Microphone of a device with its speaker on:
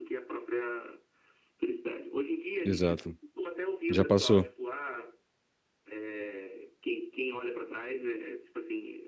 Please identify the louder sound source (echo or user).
user